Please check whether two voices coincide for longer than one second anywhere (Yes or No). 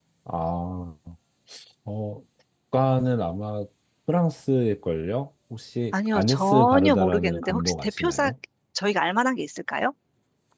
Yes